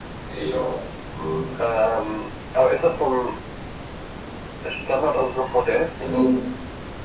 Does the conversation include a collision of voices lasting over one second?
No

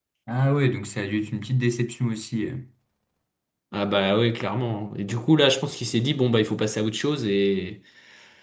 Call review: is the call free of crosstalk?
Yes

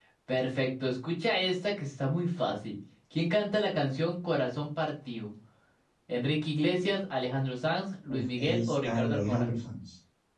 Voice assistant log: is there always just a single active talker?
No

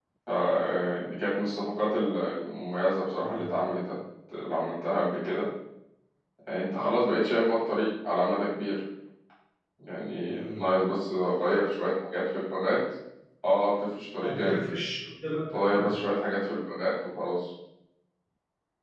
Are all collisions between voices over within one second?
Yes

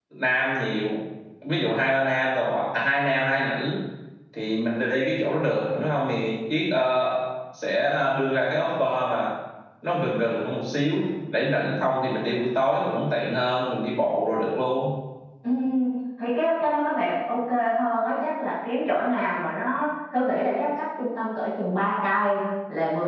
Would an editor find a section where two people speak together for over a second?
No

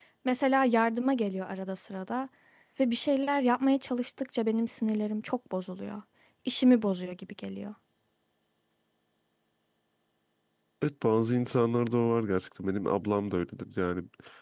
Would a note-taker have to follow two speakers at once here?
No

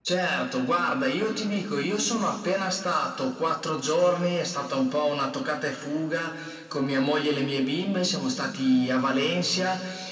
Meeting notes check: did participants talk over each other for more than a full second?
No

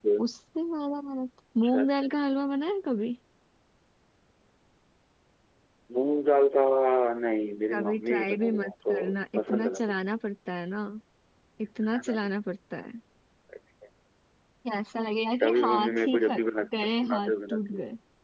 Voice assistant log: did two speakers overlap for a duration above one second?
Yes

